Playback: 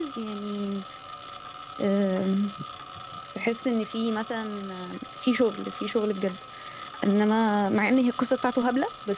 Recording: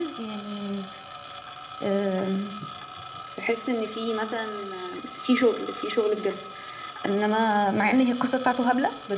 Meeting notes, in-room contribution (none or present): none